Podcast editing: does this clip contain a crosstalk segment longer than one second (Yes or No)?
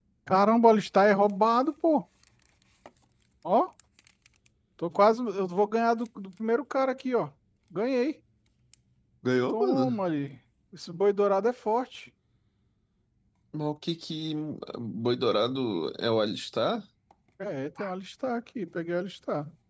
No